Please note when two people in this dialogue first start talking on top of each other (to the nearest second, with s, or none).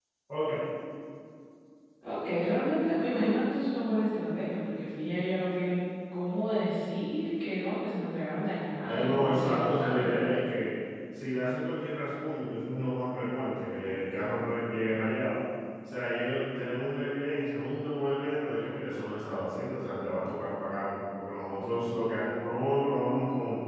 9 s